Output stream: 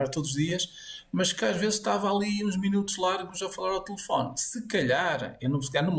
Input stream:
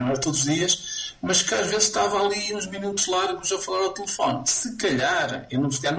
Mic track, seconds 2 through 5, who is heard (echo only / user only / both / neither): echo only